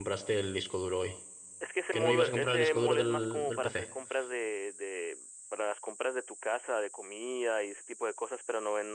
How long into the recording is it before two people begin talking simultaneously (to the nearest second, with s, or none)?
2 s